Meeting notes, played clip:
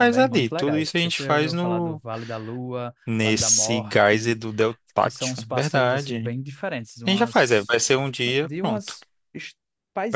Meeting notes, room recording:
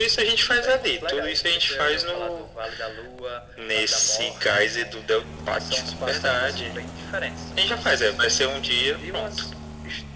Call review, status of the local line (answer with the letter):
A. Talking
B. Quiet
B